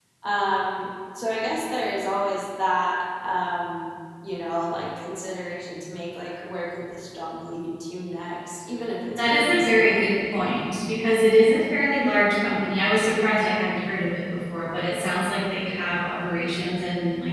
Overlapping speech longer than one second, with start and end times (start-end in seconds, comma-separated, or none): 9.2-10.4